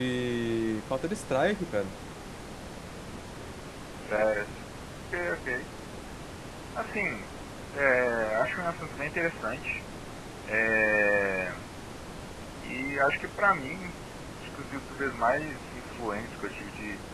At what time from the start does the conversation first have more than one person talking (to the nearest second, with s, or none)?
none